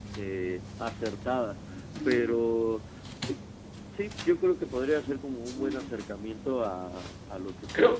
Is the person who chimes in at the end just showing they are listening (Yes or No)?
No